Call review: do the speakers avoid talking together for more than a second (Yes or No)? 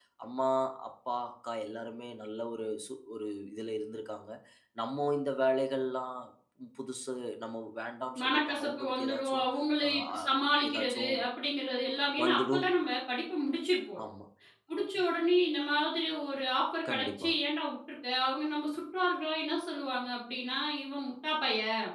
No